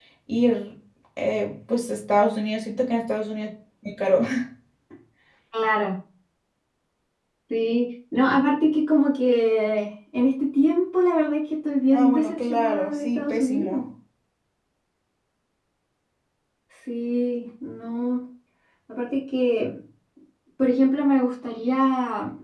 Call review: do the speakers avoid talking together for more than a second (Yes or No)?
No